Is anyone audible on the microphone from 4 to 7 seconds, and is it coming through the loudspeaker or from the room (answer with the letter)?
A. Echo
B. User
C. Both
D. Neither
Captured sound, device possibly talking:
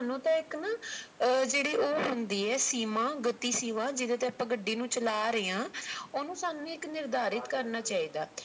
A